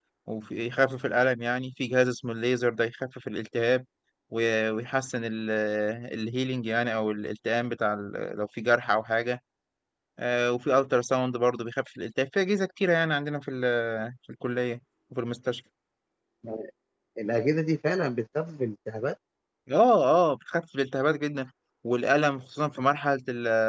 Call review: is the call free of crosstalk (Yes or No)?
Yes